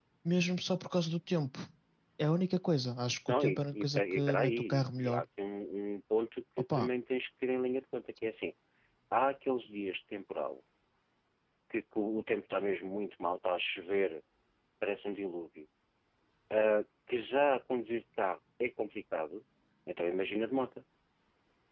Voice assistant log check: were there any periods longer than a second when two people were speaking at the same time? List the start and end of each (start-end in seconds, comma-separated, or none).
3.3-5.2